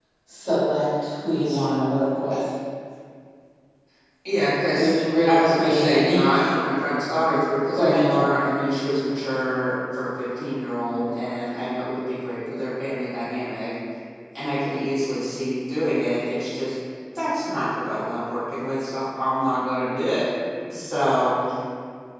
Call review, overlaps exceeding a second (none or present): present